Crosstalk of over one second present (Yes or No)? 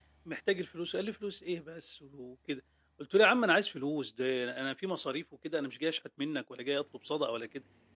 No